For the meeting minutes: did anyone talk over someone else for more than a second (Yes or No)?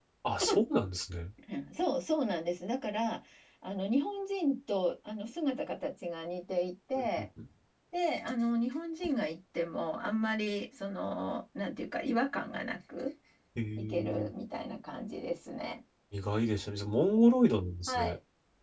No